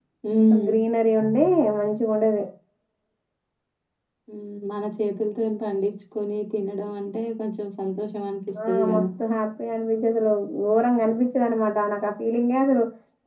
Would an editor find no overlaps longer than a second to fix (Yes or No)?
Yes